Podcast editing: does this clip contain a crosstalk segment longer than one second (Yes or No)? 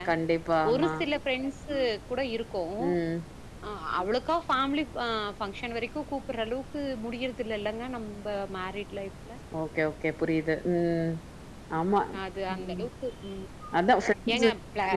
No